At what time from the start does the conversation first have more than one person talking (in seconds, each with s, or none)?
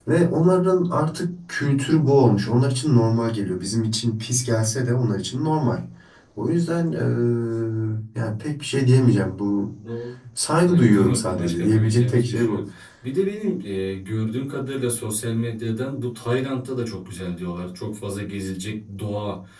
10.6 s